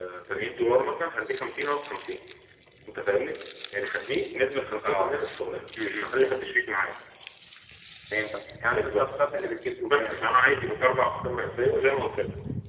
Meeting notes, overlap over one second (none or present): none